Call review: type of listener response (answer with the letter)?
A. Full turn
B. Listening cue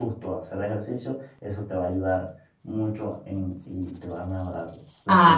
A